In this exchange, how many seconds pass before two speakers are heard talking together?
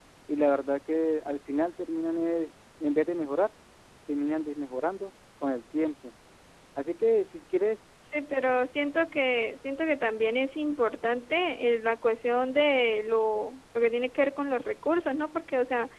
none

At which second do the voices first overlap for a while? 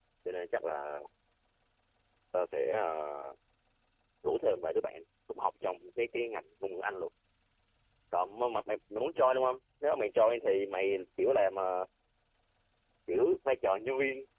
none

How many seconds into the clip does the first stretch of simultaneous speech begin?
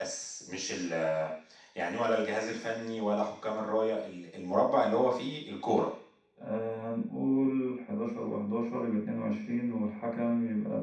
none

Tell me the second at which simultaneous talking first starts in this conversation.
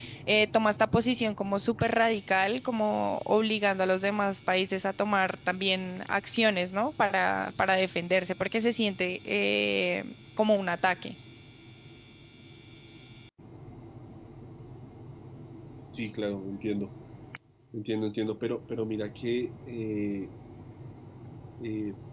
none

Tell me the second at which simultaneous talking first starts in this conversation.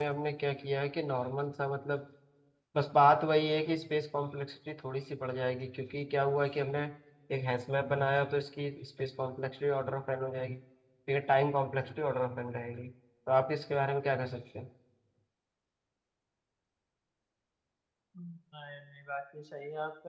none

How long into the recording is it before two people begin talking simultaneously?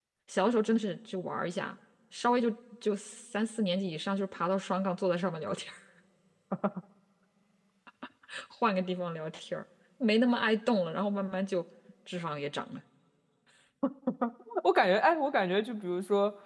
none

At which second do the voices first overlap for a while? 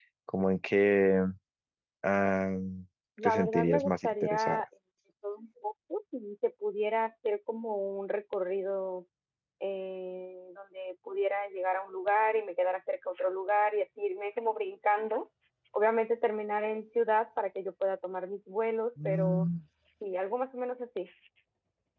3.2 s

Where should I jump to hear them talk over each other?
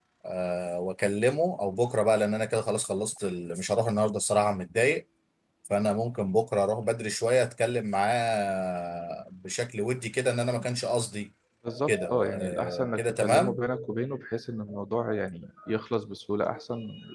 11.9 s

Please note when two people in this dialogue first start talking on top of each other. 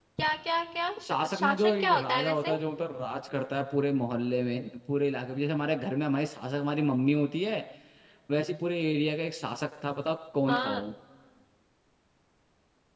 1.0 s

